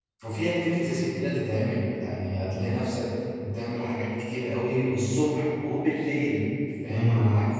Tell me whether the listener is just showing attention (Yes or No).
Yes